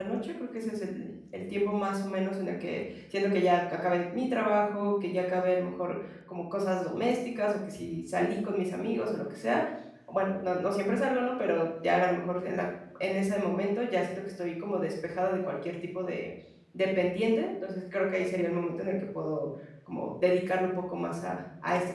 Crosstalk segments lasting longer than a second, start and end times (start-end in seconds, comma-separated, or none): none